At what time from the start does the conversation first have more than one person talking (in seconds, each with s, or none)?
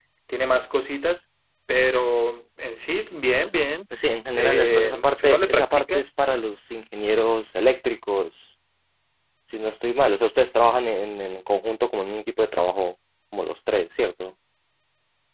4.3 s